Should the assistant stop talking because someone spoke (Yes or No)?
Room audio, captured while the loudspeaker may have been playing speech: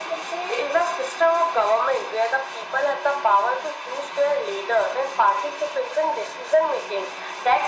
No